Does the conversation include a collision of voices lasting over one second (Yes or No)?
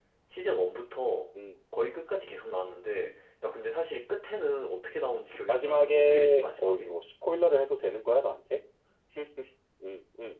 Yes